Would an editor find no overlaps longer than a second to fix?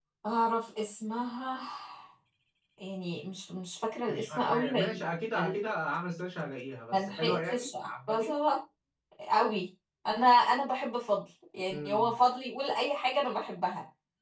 No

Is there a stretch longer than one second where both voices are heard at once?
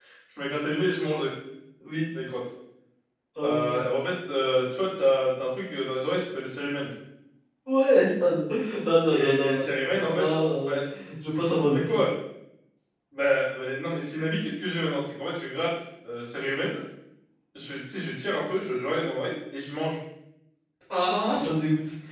Yes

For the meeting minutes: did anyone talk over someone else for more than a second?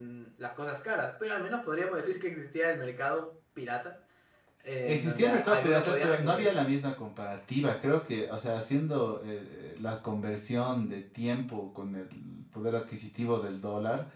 Yes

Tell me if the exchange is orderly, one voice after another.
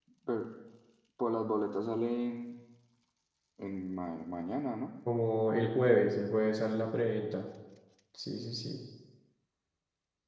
Yes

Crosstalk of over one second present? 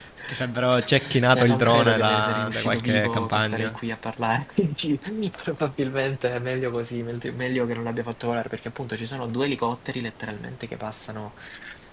Yes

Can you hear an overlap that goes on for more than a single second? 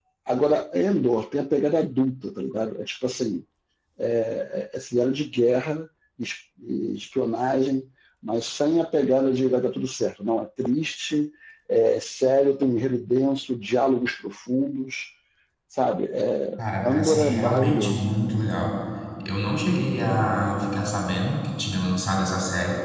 Yes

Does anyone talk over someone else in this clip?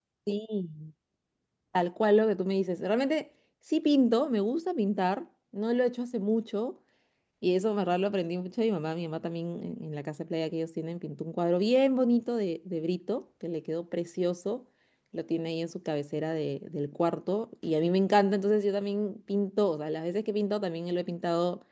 No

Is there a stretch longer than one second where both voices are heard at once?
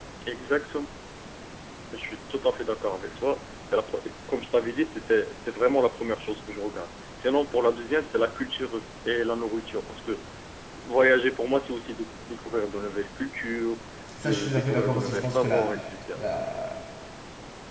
Yes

